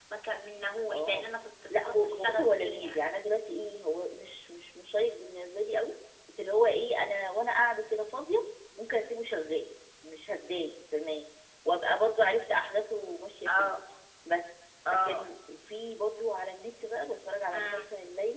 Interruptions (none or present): present